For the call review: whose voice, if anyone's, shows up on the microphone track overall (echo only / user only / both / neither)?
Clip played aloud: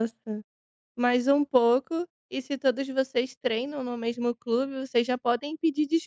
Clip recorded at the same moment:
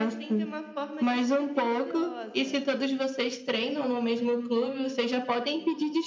both